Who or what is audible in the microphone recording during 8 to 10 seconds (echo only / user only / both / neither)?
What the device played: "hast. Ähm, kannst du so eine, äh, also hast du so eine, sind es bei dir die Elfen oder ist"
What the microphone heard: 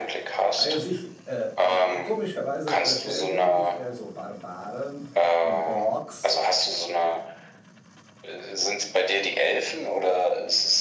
echo only